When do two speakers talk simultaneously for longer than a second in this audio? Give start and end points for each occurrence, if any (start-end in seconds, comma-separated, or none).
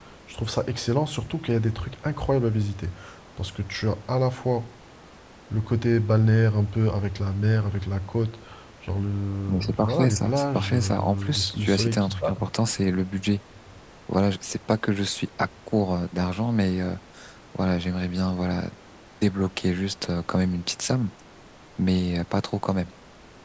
9.5-12.4